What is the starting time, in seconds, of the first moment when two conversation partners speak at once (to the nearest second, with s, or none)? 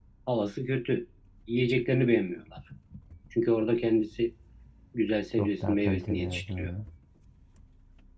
5 s